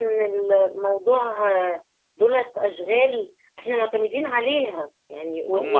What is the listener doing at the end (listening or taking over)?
taking over